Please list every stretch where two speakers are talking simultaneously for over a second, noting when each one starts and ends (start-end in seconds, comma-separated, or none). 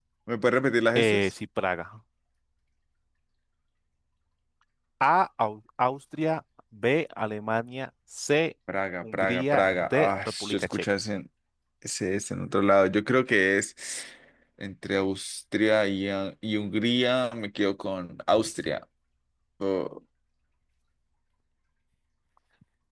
9.1-10.9